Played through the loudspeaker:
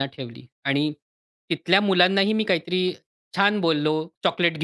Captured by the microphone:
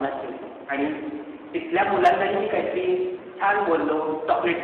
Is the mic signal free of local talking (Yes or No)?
Yes